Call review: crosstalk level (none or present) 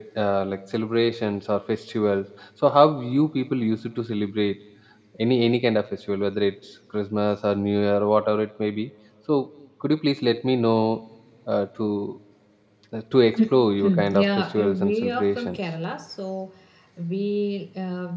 present